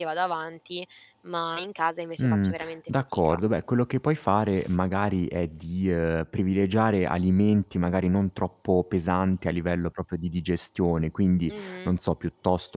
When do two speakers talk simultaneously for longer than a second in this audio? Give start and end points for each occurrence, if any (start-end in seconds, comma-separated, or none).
2.2-3.4